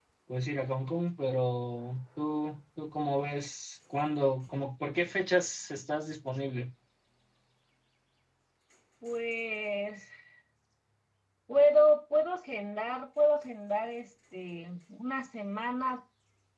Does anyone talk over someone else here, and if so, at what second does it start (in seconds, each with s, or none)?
none